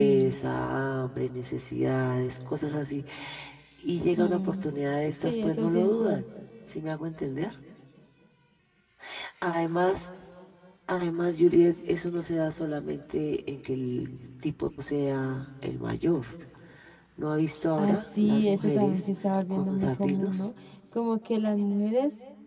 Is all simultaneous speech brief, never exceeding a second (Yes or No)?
No